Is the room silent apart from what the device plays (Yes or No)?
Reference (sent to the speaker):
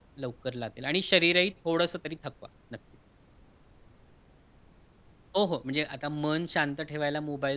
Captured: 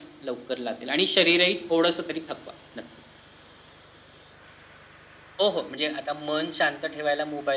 Yes